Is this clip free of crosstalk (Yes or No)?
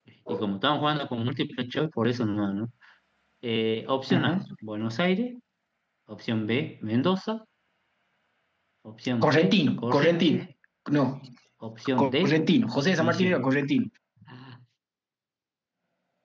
No